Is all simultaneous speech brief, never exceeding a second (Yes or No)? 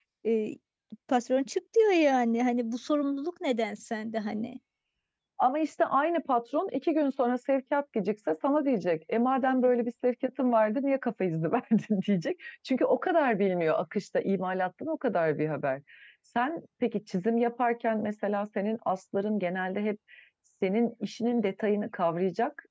Yes